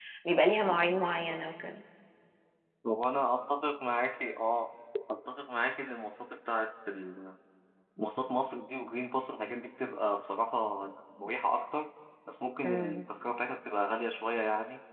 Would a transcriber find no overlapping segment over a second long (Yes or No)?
Yes